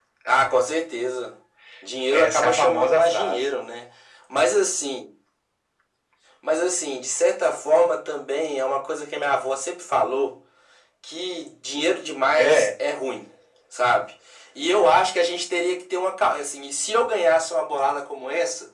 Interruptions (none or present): present